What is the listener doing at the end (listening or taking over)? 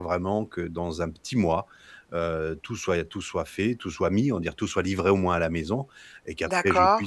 listening